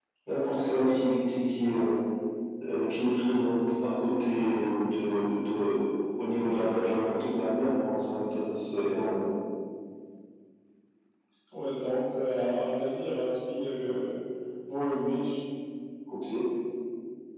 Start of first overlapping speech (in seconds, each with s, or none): none